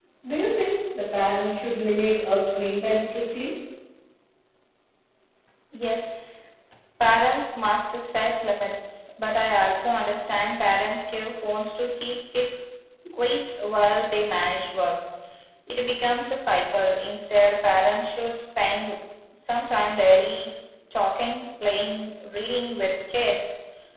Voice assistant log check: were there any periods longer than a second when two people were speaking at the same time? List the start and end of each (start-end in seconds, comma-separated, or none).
none